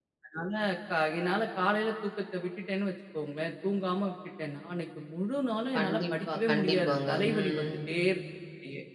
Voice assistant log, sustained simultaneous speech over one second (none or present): present